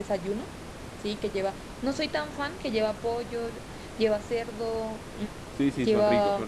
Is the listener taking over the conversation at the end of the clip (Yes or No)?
Yes